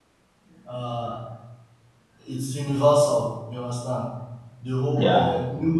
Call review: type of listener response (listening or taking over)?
listening